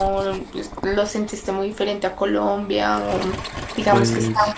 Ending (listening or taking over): listening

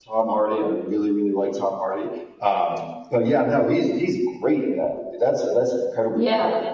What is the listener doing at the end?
taking over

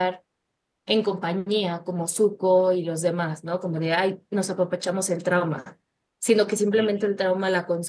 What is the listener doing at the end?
listening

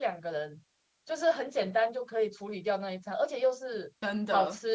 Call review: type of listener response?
listening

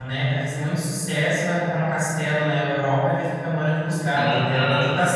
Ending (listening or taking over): taking over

